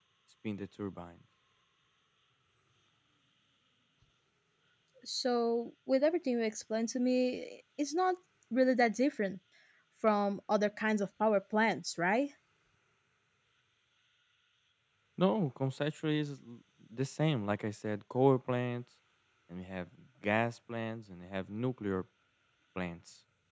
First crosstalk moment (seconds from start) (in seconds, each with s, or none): none